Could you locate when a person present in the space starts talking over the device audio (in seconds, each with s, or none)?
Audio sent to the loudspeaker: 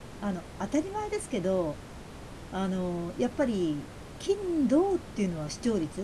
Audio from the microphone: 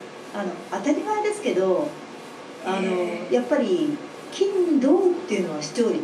2.7 s